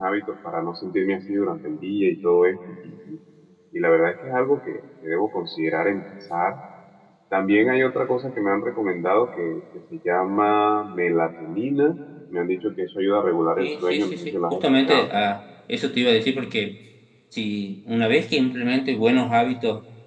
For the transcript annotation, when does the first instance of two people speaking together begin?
13.6 s

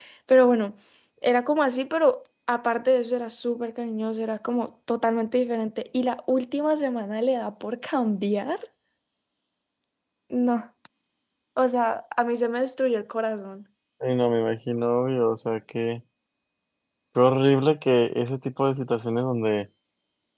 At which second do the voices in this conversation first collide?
none

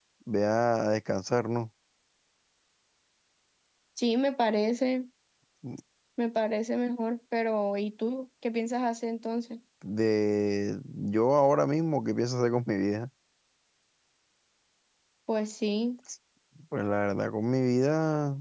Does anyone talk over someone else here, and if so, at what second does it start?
none

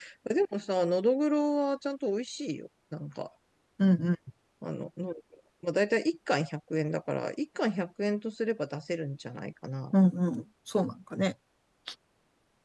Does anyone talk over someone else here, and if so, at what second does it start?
none

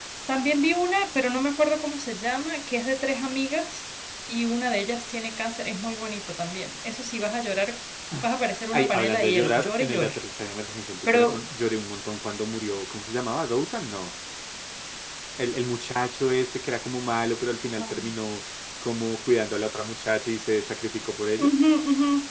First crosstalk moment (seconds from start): 8.7 s

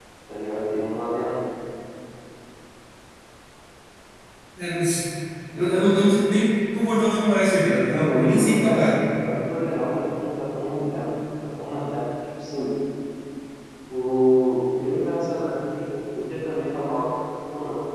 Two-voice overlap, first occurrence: 7.5 s

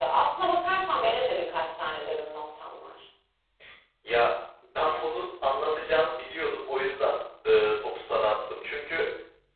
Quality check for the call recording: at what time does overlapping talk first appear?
none

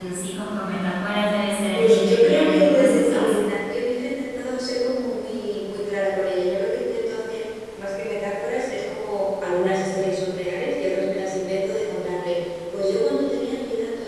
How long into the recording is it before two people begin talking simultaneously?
1.8 s

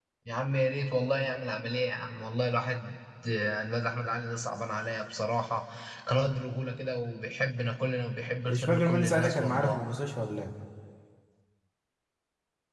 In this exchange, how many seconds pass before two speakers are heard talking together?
8.5 s

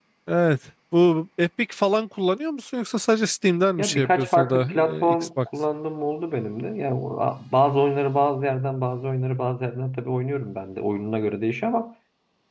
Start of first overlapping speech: 3.8 s

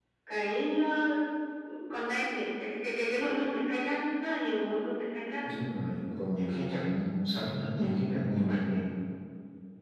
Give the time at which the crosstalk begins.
none

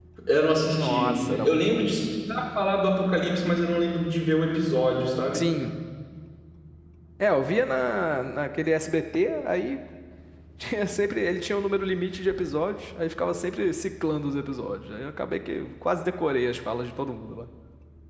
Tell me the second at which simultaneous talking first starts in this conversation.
0.7 s

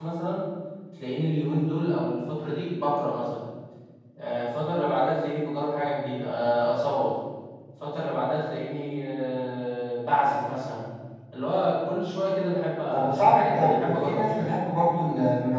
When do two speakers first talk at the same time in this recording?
12.9 s

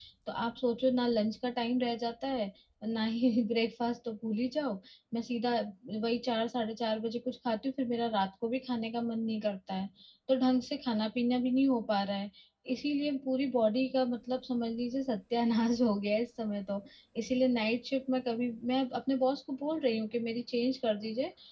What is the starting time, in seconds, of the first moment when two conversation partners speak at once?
none

